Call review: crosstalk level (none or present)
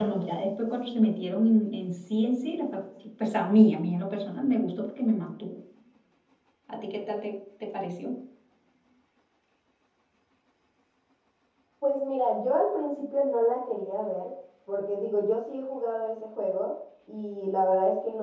none